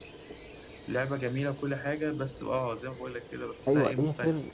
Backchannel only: No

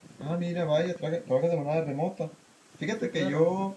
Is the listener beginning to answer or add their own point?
No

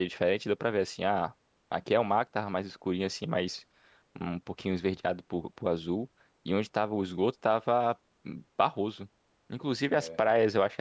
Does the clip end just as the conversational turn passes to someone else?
No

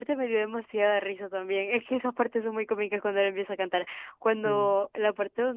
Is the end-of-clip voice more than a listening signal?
No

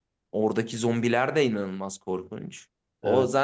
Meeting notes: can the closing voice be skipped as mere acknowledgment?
Yes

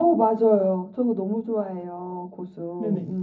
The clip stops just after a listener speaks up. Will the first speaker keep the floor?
No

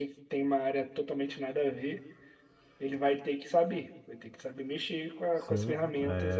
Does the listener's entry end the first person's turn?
Yes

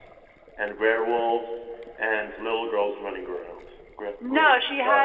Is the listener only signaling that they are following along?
No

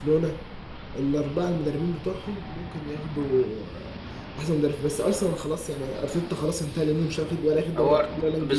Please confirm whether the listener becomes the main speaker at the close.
Yes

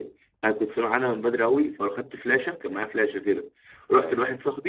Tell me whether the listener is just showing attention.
Yes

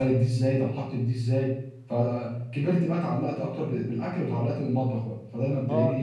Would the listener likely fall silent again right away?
No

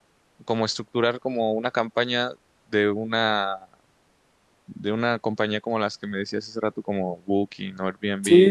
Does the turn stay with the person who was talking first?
No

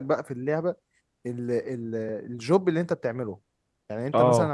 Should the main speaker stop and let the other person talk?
No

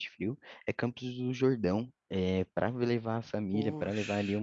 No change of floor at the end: Yes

